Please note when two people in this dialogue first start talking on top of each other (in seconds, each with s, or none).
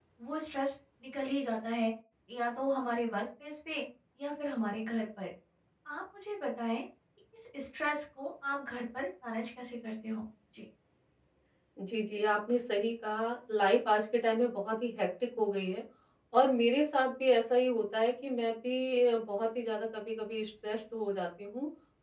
none